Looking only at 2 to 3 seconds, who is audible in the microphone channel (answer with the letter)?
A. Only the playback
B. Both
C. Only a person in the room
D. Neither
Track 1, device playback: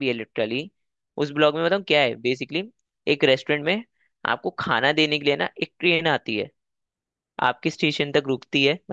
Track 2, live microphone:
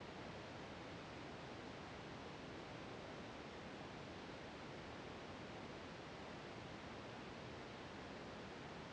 D